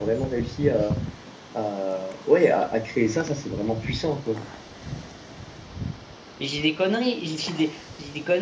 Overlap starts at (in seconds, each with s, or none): none